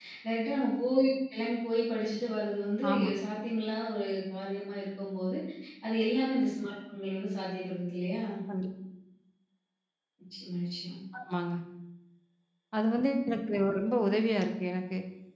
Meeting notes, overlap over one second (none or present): none